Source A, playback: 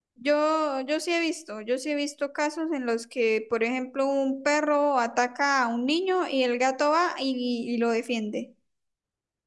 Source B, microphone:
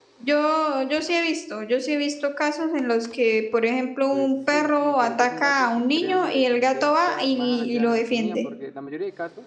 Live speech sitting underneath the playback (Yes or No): Yes